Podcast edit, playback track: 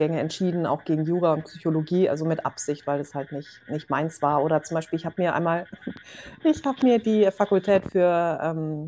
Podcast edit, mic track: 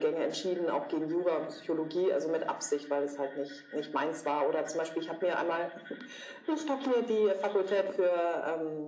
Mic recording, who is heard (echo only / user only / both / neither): echo only